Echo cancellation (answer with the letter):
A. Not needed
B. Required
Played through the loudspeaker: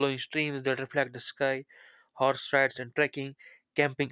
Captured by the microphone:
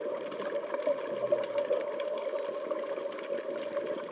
A